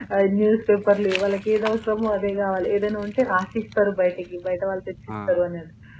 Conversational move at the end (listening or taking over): listening